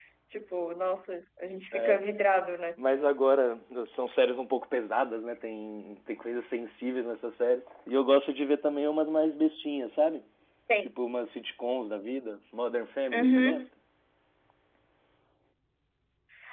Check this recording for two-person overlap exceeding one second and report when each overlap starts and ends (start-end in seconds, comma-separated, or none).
none